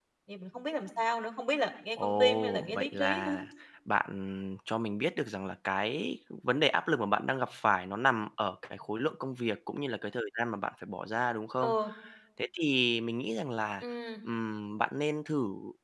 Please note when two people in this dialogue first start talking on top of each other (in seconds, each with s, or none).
2.0 s